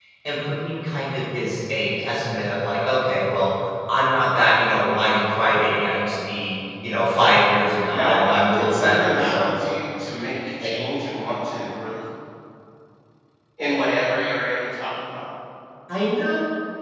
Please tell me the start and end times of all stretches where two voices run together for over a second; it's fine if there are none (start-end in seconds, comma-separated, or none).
7.3-9.5